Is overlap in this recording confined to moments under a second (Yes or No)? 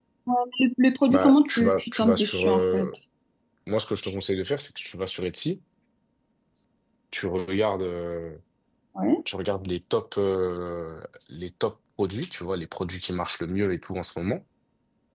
No